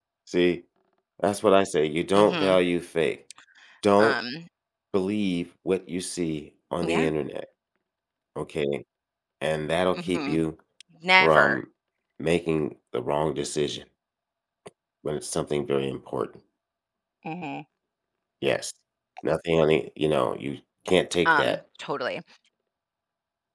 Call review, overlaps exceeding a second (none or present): none